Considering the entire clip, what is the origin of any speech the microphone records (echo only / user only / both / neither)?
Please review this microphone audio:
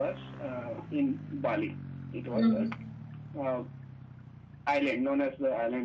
both